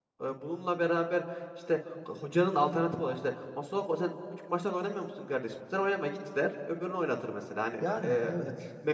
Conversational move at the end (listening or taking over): listening